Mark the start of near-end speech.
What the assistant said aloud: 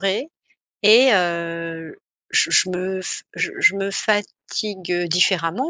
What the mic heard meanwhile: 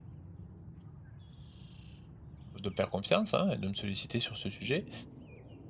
2.6 s

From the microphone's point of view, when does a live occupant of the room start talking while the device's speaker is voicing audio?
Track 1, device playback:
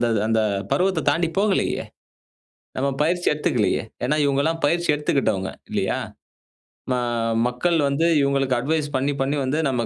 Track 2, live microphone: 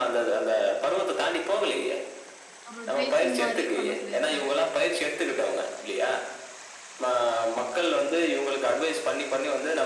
2.7 s

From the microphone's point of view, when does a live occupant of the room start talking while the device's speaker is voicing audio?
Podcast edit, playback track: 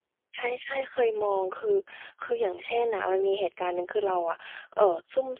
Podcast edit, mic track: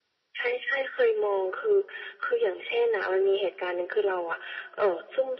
none

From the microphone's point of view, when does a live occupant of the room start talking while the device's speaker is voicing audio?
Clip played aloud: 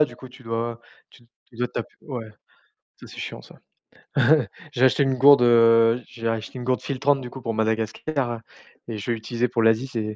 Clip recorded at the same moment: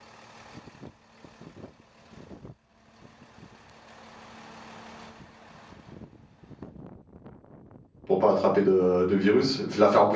8.1 s

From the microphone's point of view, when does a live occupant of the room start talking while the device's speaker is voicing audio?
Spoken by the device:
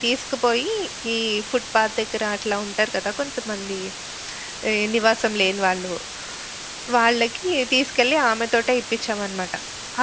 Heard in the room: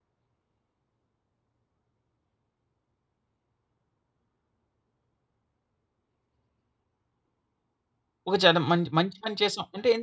8.3 s

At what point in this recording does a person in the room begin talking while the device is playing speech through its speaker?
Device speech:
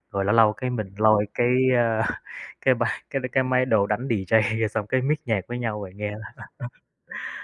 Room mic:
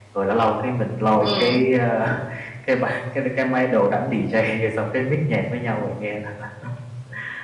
1.2 s

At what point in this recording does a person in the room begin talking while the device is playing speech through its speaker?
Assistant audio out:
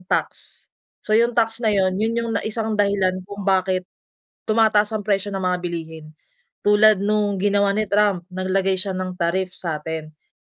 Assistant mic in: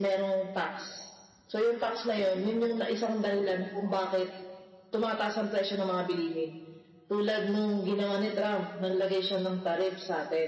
none

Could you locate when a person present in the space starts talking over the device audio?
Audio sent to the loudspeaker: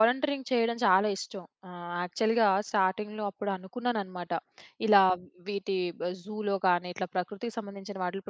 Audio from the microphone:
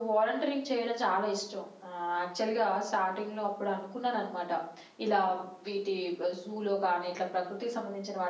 none

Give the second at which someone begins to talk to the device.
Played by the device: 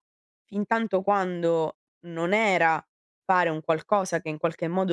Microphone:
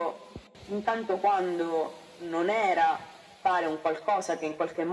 none

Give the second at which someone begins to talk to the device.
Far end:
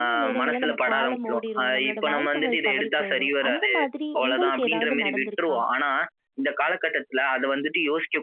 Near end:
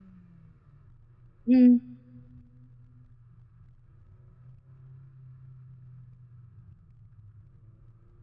1.4 s

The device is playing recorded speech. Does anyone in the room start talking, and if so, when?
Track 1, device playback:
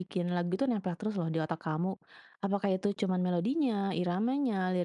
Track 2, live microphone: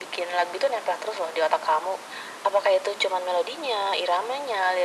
none

